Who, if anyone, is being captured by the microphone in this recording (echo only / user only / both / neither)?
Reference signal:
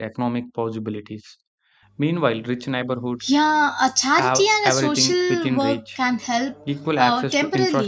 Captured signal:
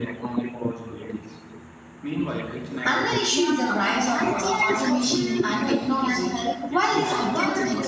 both